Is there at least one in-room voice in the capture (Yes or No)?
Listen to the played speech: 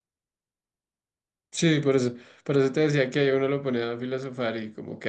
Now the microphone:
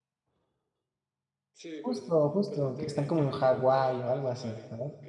Yes